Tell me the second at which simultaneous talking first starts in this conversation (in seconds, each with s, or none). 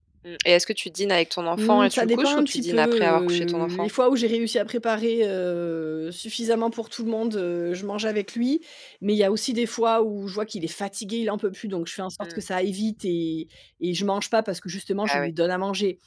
1.6 s